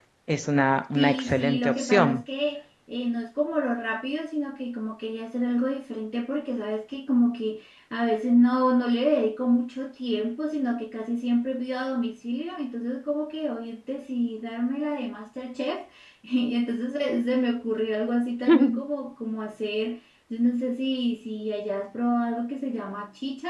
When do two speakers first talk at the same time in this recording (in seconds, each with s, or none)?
0.9 s